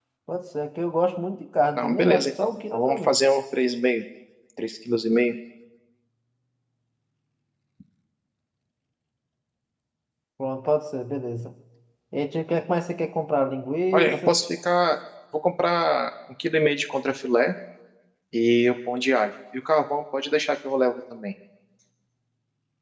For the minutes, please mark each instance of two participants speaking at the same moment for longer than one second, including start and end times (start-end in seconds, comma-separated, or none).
1.8-3.2